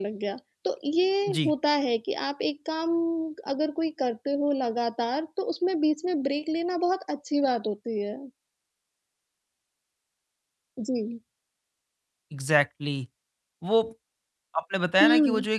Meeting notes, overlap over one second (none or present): none